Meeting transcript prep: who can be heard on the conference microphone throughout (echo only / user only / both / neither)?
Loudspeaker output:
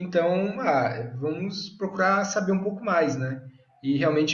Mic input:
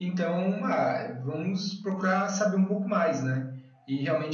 echo only